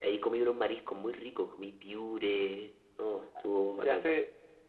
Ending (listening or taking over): taking over